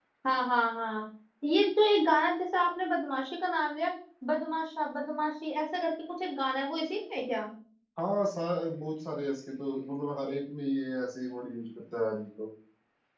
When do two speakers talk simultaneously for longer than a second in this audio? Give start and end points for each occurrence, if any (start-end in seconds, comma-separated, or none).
none